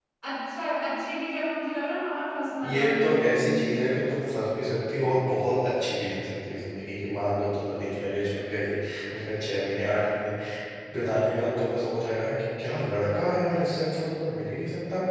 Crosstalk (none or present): present